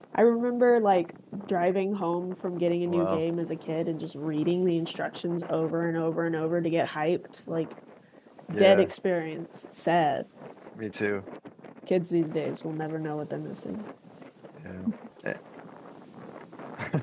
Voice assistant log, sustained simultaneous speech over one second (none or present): none